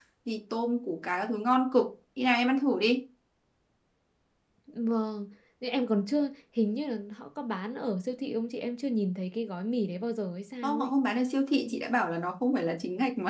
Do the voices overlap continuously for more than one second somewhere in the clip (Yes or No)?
No